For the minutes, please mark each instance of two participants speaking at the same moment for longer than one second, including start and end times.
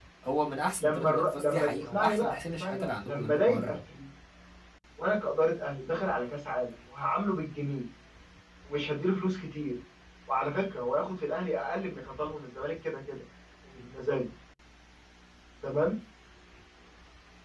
0.8-3.8

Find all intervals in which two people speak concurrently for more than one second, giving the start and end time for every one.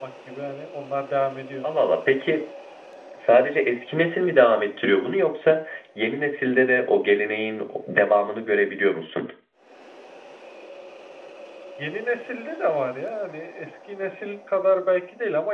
none

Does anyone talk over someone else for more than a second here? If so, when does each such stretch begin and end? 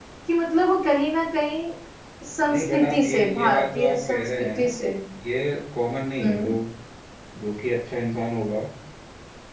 2.5-4.7

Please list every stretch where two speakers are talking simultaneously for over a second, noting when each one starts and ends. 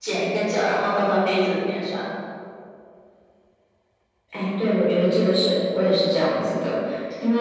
none

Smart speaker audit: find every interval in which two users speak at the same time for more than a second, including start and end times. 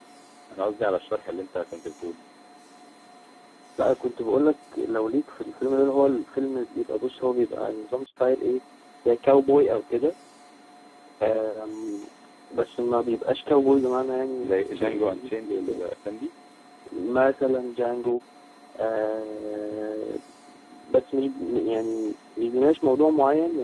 14.5-15.9

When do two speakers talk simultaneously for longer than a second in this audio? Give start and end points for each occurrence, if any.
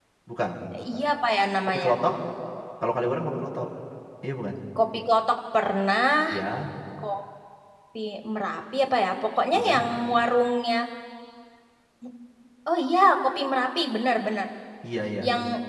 none

